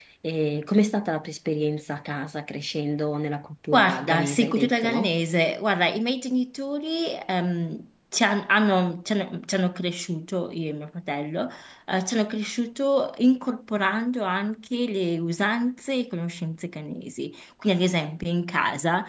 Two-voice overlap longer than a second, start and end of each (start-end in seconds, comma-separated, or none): 3.7-5.1